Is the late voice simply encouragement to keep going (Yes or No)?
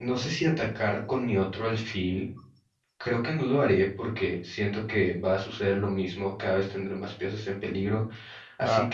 Yes